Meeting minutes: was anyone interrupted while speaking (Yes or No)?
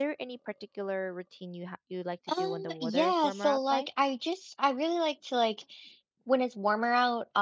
Yes